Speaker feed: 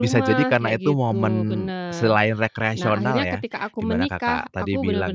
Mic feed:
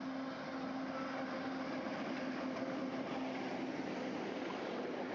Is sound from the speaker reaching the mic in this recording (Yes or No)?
No